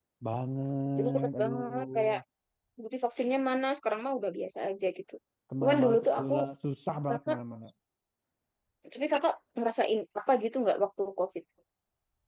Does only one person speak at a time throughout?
No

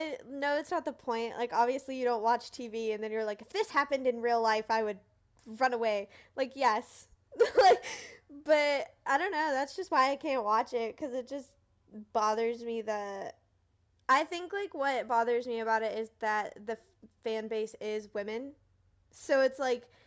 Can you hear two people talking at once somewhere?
No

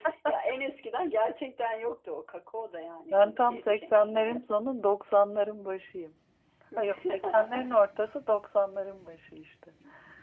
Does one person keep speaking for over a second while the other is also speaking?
Yes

